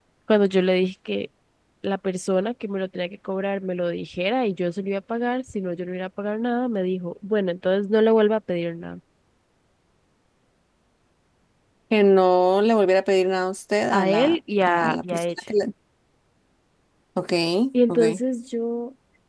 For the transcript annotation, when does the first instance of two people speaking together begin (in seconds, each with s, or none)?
13.9 s